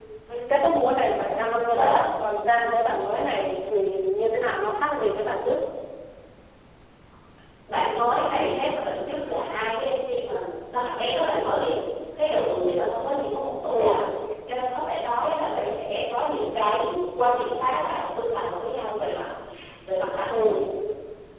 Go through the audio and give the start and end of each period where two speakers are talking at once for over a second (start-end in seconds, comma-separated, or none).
none